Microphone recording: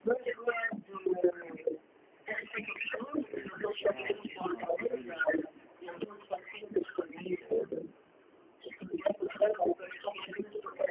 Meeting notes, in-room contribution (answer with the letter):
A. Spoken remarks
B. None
A